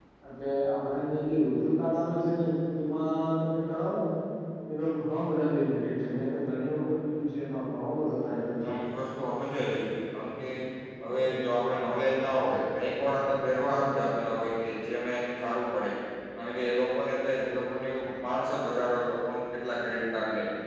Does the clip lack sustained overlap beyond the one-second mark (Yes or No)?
Yes